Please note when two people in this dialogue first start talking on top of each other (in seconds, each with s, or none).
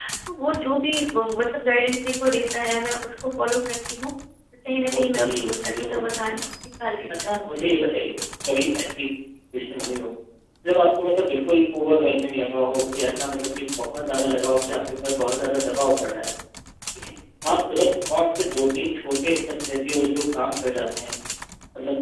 4.9 s